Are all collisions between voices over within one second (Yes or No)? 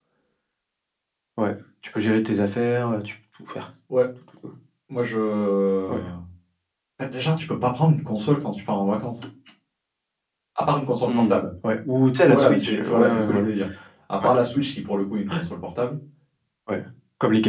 No